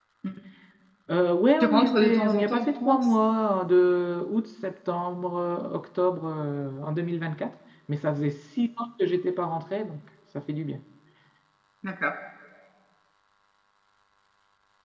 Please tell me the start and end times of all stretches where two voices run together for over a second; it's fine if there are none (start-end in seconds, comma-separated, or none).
1.6-3.0